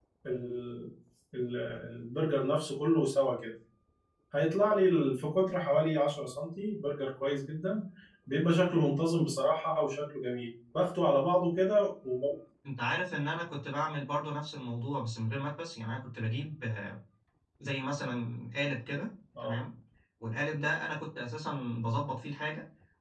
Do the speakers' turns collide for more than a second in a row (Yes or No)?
No